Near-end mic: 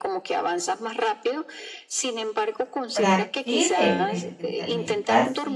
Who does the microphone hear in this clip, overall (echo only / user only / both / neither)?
both